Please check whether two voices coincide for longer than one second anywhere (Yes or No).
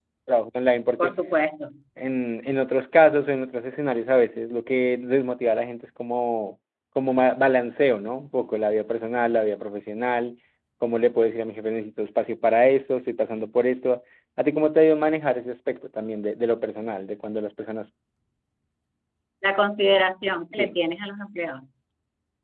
No